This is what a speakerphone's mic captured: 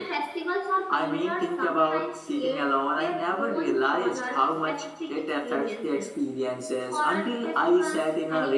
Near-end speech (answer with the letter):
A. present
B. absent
B